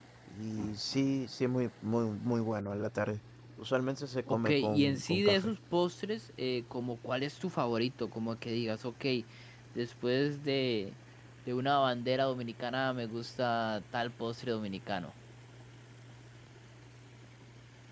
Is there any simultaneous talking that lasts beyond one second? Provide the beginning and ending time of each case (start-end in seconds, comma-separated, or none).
4.3-5.5